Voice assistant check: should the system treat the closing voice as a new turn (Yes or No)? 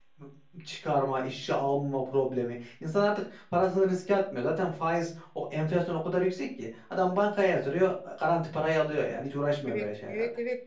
Yes